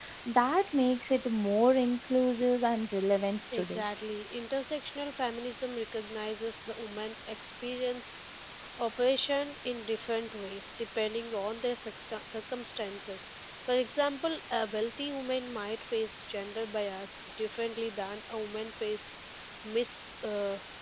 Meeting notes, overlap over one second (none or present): none